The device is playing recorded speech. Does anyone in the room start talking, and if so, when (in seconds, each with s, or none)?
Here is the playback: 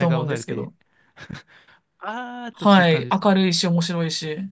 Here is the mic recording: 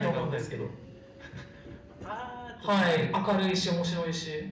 none